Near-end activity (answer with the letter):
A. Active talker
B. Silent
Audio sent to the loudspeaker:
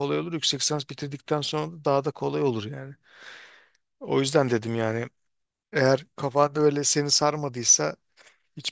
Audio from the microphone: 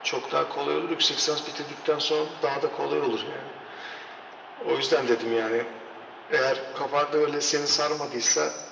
B